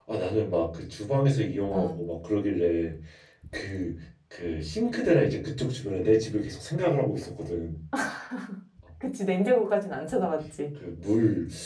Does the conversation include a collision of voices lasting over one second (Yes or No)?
No